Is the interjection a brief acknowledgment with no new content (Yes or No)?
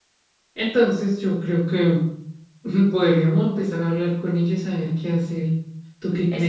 No